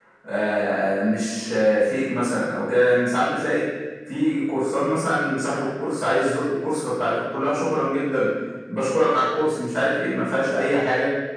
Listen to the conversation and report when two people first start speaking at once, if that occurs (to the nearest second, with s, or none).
none